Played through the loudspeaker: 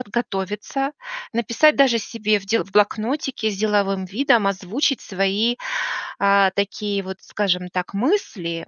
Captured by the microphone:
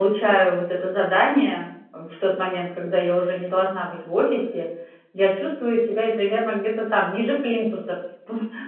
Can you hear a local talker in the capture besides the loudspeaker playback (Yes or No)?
Yes